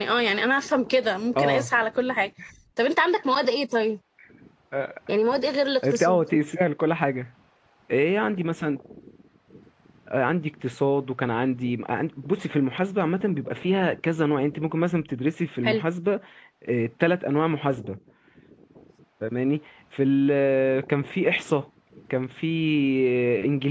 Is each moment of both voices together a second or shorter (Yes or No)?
Yes